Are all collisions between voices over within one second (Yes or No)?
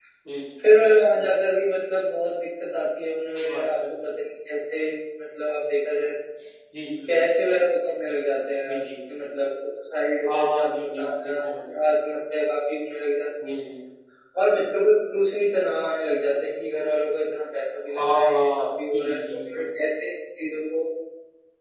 No